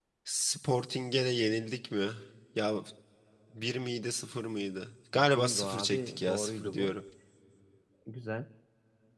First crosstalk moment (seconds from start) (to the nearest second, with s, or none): 5 s